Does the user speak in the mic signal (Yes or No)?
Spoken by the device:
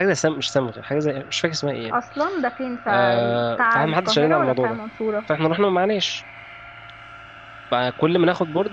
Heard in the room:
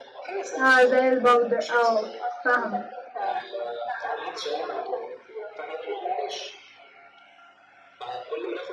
Yes